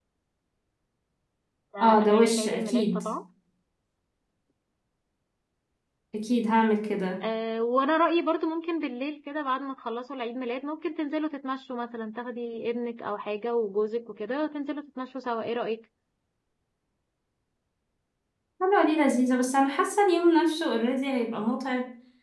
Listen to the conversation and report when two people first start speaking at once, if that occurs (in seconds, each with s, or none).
1.8 s